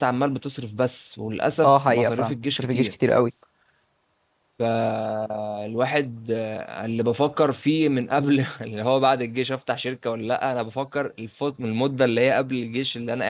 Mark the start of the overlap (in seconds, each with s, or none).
1.6 s